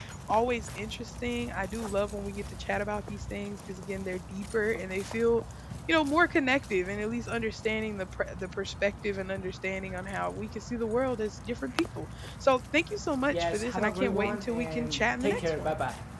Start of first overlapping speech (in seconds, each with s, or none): 13.3 s